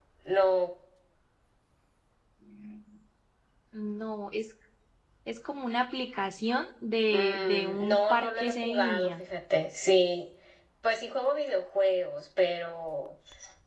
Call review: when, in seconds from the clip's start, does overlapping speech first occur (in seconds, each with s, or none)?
7.1 s